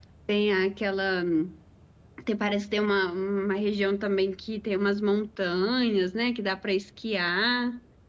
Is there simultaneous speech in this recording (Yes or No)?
No